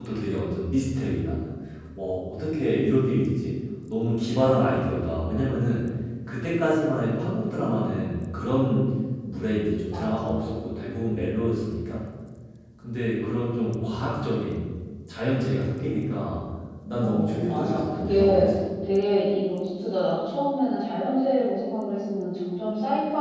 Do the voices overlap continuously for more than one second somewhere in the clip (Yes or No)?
Yes